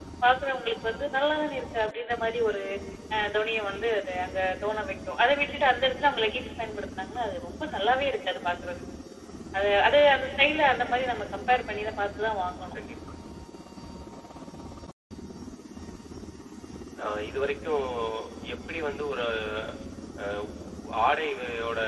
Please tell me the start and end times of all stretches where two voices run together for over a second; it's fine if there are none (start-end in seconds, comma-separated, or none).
none